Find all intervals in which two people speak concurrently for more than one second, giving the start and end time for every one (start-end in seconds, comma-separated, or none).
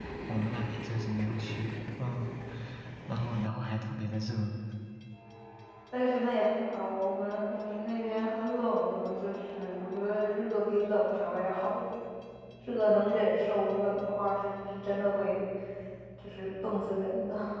none